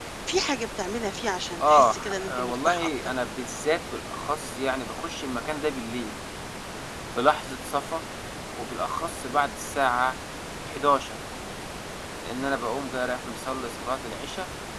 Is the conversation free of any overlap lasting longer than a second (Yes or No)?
No